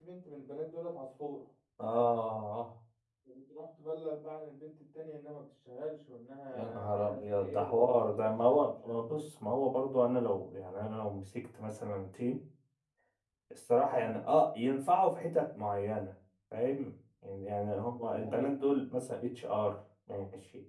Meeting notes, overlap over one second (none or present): present